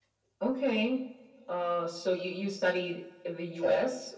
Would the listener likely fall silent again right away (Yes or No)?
Yes